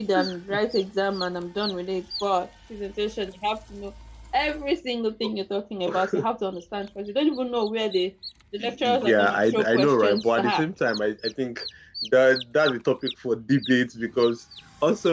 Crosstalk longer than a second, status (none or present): present